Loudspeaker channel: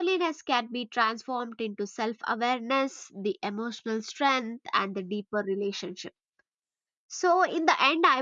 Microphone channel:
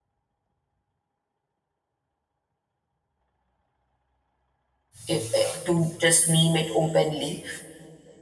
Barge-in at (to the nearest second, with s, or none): 5 s